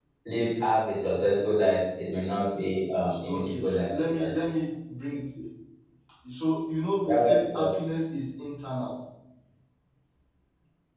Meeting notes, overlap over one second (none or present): present